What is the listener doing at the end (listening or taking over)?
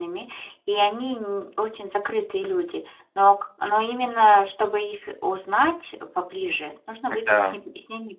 listening